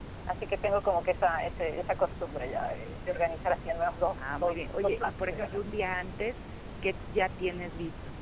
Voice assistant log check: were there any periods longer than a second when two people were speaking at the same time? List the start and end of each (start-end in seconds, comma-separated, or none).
4.1-5.4